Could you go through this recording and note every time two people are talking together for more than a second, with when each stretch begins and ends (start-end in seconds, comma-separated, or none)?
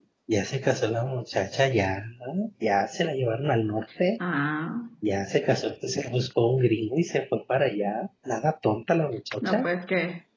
none